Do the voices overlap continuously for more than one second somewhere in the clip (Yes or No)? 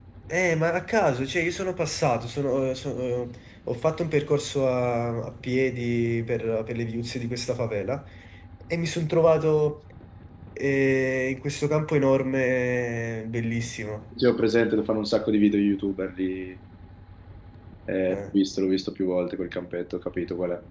No